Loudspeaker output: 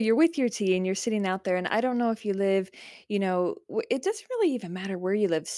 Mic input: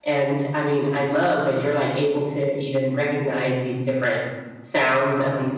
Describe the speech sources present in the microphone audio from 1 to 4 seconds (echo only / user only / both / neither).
user only